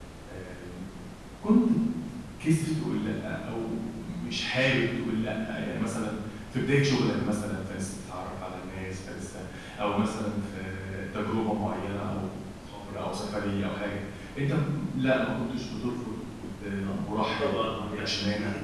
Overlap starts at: 17 s

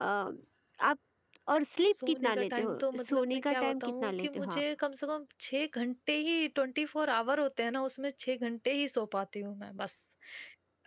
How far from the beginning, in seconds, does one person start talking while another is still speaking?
2 s

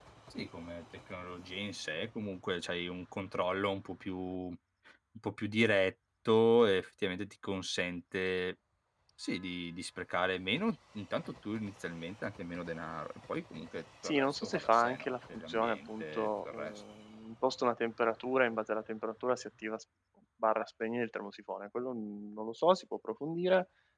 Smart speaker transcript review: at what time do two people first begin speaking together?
14 s

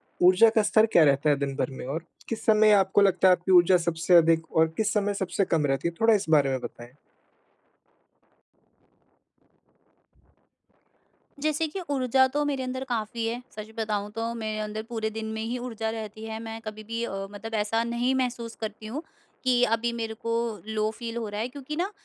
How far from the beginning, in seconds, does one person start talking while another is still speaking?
none

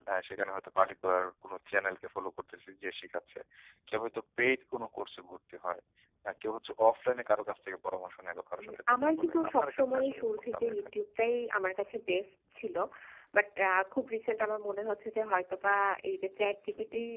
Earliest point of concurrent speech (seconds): 9 s

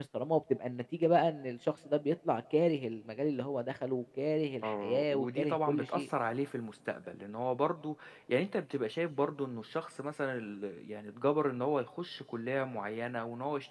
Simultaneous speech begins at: 5 s

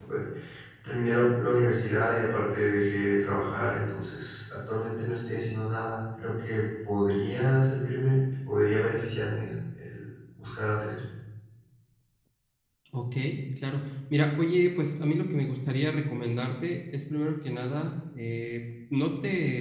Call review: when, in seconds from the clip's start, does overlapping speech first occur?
none

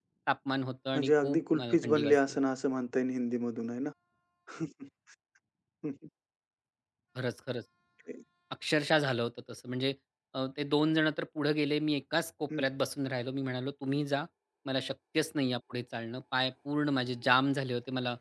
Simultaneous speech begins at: 1 s

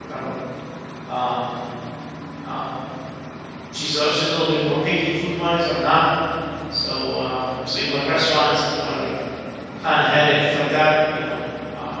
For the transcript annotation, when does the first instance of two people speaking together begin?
none

